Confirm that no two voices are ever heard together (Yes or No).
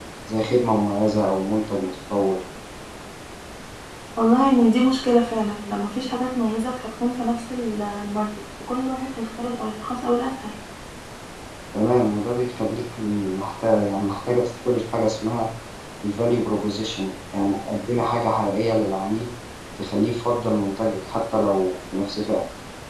Yes